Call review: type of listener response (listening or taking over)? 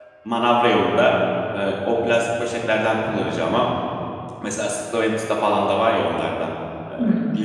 listening